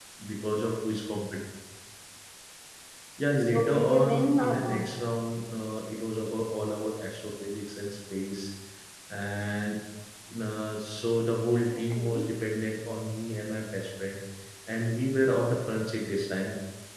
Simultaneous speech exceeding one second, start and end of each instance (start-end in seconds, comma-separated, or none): 3.5-4.8